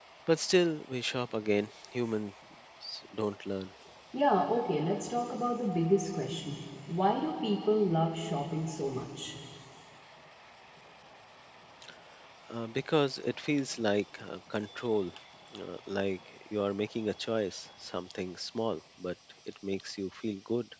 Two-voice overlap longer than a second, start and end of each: none

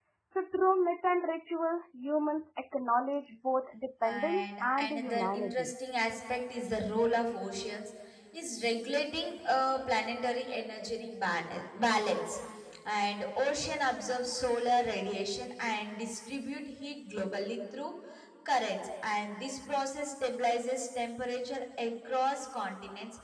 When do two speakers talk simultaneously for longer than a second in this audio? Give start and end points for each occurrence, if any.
4.0-5.7

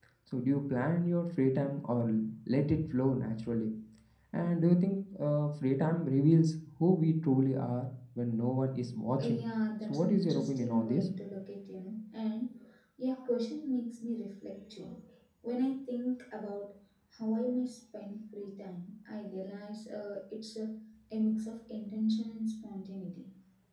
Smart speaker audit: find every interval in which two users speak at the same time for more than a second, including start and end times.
9.8-11.1

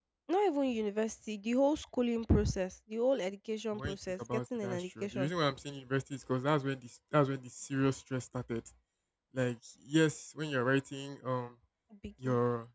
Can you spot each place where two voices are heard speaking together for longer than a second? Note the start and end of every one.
3.7-5.3

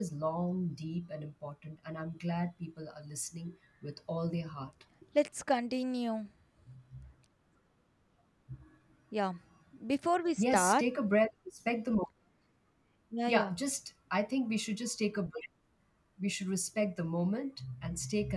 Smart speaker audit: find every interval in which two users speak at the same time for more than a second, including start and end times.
none

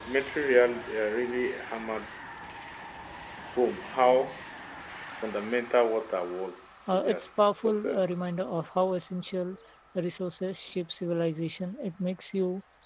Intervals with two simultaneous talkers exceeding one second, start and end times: 6.9-8.3

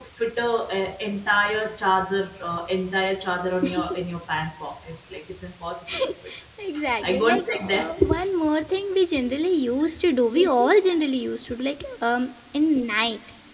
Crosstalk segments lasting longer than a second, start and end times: 7.0-8.3

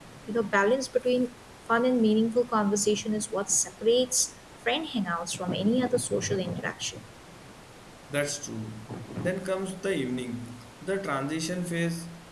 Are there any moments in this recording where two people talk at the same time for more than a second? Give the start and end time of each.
none

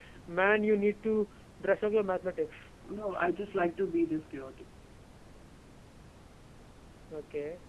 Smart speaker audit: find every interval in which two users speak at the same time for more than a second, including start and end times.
none

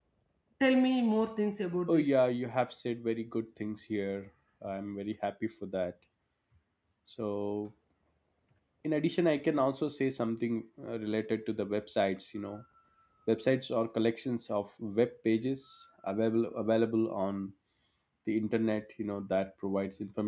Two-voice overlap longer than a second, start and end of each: none

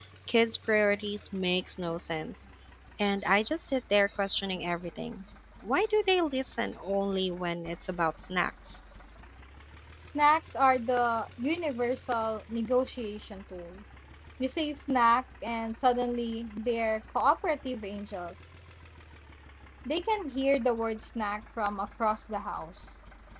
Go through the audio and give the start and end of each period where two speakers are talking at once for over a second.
none

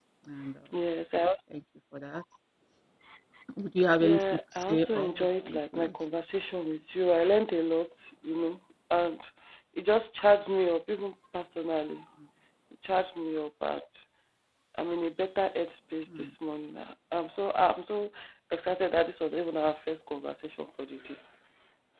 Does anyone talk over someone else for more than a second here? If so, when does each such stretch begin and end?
4.0-5.9

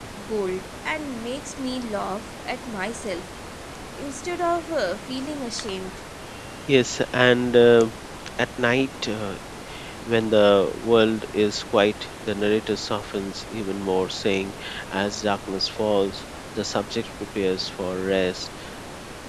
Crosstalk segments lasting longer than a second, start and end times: none

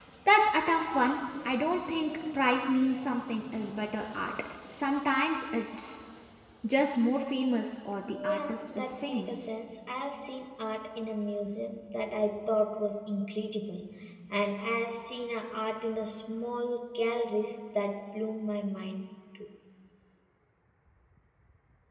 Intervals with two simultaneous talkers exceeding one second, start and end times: 8.1-9.5

